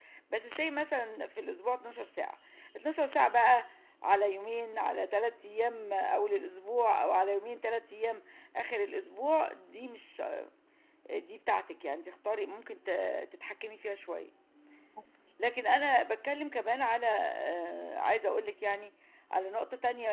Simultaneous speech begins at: none

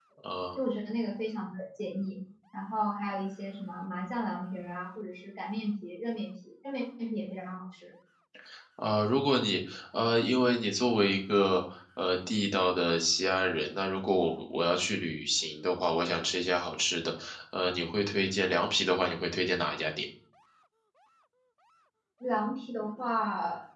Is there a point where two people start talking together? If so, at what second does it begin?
none

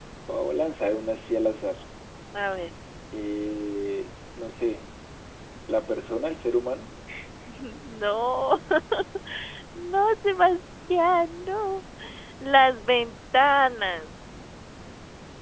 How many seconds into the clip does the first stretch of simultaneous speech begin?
none

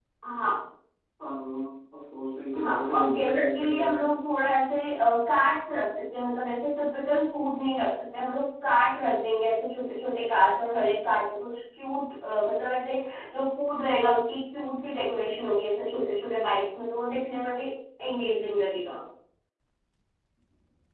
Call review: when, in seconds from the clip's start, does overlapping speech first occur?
2.5 s

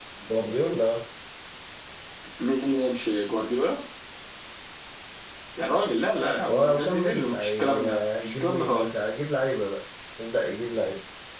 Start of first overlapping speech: 6.5 s

